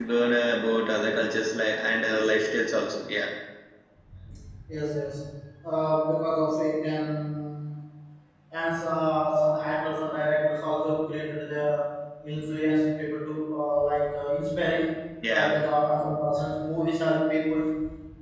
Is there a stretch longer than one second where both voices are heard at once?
No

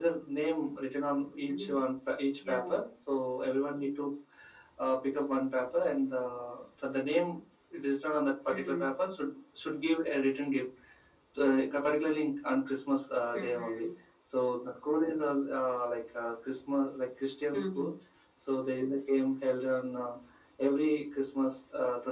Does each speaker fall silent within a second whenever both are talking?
Yes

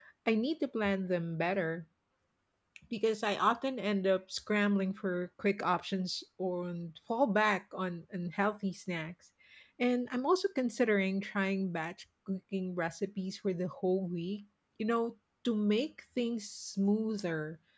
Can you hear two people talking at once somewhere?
No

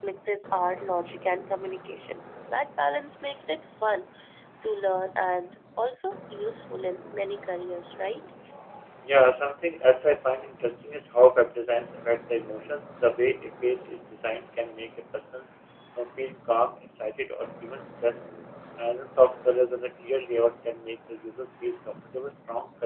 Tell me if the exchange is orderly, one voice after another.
Yes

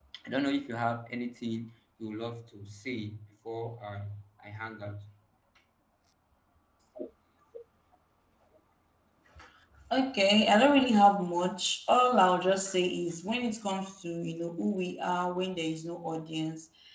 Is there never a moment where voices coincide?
Yes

